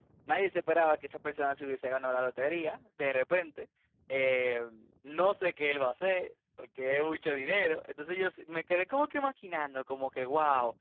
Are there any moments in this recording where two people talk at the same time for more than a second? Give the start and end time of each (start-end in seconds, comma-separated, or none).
none